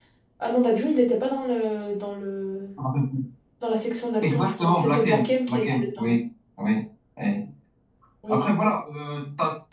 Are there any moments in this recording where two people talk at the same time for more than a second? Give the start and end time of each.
4.2-6.2

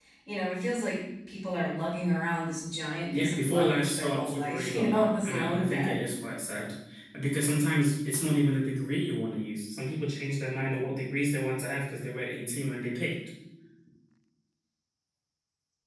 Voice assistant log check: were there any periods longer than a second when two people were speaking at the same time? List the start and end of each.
3.1-6.0

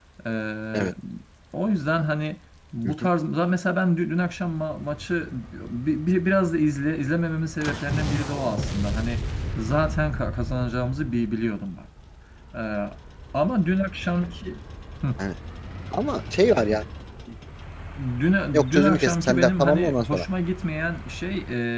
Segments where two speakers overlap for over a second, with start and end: 18.7-20.2

